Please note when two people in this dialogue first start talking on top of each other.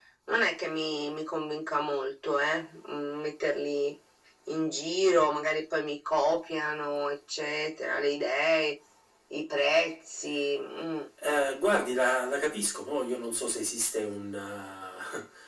none

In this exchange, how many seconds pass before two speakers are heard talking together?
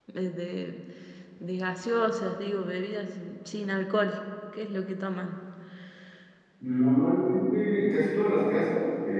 none

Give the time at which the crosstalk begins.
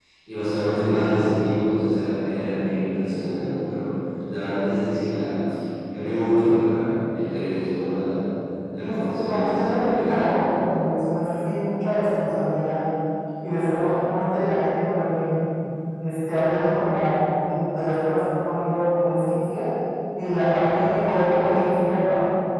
8.8 s

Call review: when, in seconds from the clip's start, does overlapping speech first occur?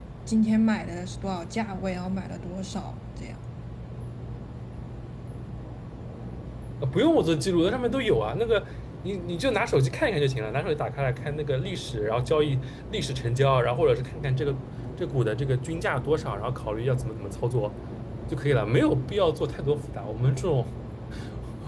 none

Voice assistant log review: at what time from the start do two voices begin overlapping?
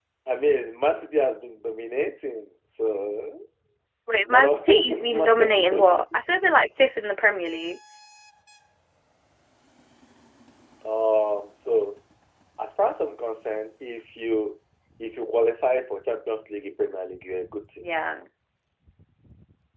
4.2 s

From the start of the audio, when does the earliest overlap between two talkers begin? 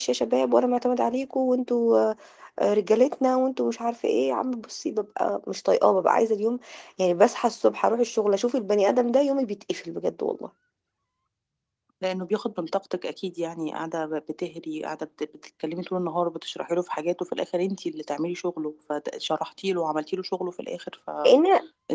none

